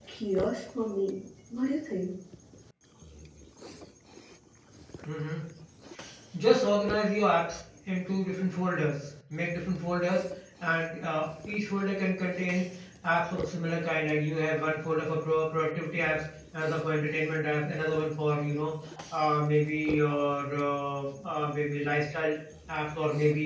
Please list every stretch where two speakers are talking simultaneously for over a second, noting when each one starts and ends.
none

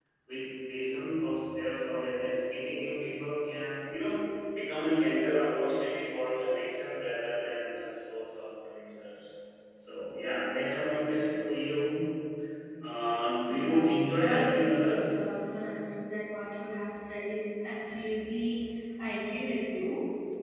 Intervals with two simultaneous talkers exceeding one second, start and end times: 13.5-15.1

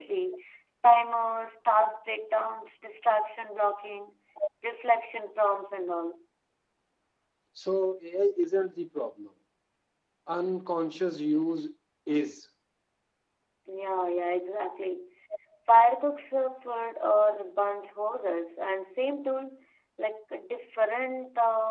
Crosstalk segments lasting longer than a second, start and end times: none

